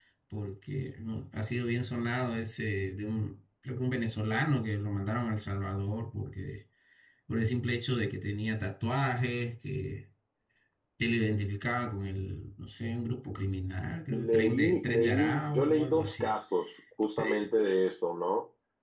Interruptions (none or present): present